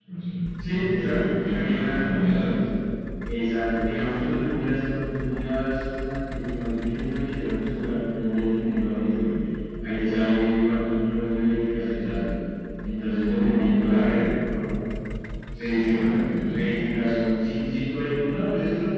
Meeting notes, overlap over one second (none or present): present